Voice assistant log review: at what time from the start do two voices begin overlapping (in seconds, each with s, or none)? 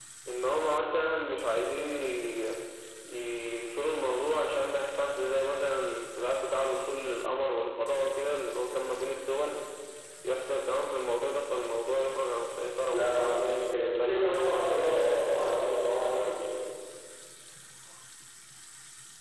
12.9 s